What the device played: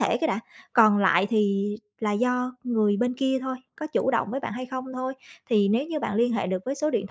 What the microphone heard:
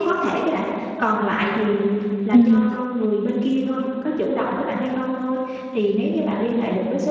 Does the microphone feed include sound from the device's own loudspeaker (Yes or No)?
Yes